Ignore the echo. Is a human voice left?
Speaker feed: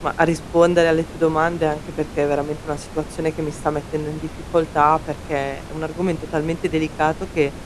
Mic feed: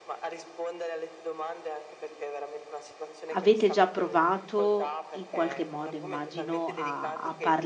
Yes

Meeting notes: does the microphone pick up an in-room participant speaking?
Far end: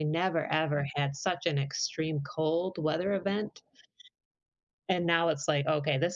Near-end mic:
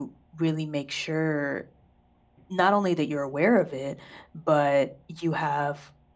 Yes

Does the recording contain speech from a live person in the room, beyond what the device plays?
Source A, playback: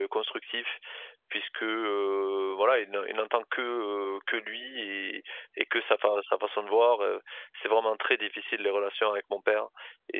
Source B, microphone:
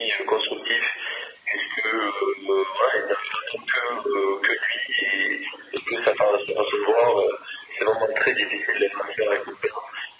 No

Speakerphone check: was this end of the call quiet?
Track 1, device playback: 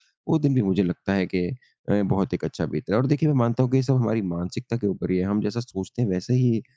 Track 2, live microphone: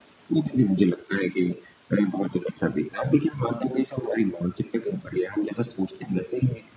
Yes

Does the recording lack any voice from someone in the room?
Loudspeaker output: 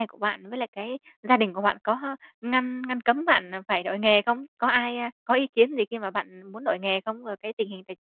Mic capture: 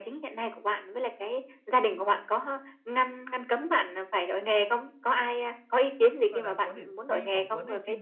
No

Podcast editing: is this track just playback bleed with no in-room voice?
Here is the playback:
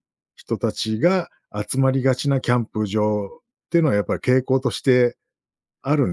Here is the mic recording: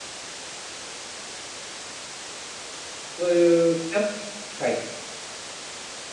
No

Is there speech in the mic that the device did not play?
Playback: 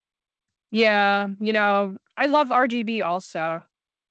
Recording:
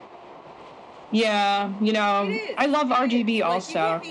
Yes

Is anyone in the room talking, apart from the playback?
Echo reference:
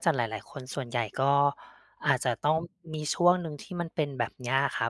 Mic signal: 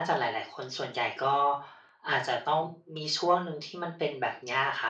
No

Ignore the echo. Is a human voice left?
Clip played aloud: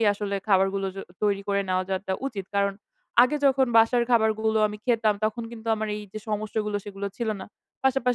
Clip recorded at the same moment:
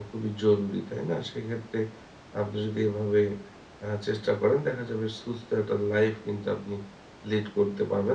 Yes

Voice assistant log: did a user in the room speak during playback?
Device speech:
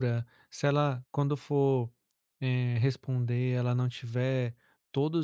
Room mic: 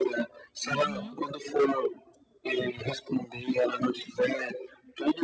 Yes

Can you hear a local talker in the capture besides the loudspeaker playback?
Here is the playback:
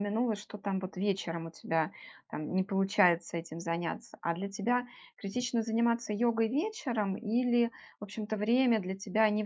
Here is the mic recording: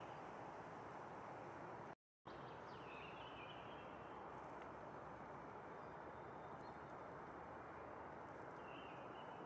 No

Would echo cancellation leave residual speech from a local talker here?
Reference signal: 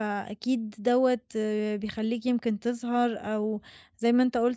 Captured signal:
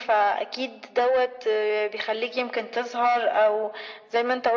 No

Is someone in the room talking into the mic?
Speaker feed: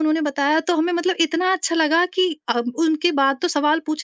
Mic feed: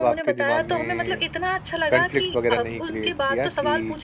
Yes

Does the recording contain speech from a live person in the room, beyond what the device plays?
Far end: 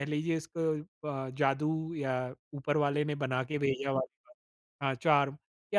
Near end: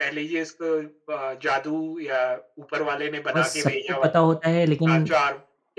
Yes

